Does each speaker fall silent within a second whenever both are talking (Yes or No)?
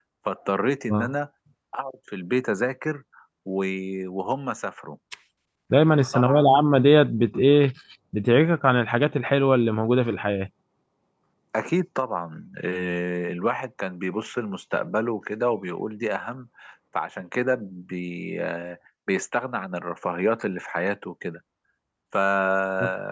Yes